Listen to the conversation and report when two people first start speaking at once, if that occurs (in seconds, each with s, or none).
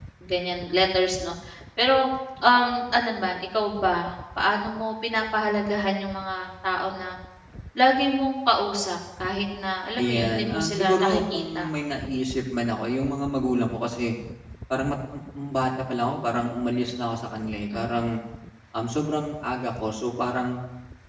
10.0 s